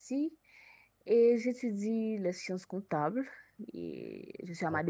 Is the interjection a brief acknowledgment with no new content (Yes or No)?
Yes